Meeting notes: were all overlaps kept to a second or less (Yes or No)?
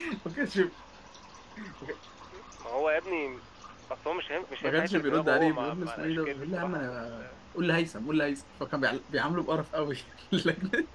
No